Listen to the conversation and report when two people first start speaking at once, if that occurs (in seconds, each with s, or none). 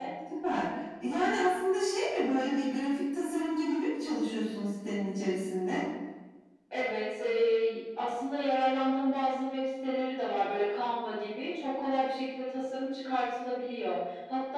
none